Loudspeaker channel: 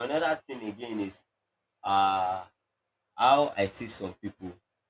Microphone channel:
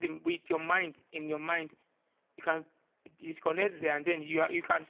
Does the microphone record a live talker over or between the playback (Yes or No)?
Yes